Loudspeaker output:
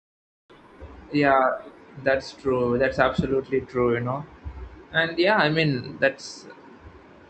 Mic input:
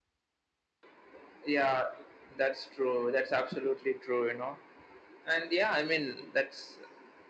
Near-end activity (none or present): none